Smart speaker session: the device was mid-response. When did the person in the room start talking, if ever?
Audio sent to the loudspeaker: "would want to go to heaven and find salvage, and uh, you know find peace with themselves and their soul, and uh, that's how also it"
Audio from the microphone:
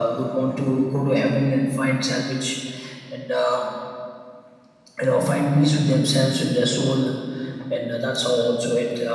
none

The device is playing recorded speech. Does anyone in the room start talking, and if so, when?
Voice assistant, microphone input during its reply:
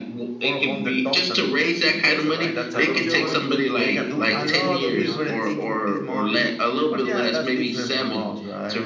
3 s

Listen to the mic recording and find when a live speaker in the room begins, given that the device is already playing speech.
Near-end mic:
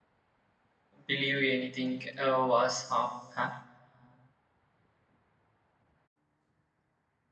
1 s

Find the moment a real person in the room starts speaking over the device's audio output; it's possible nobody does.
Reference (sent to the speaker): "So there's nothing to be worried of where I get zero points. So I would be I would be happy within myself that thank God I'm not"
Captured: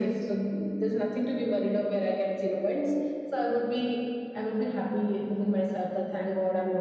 none

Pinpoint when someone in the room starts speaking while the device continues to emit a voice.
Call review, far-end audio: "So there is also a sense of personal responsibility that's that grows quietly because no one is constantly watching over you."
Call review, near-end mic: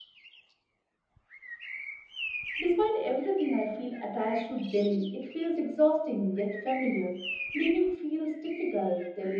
3 s

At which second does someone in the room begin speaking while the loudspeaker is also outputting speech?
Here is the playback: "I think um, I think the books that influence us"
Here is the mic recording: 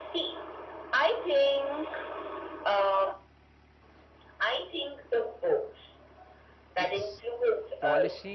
7 s

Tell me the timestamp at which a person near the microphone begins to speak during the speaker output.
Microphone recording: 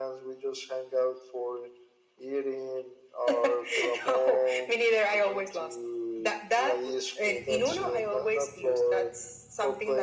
none

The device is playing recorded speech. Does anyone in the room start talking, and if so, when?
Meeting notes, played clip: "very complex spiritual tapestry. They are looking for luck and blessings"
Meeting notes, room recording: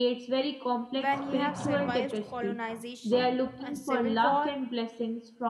1 s

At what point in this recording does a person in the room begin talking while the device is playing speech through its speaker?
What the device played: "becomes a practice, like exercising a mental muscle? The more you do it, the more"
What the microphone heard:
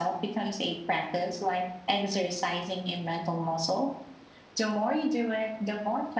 none

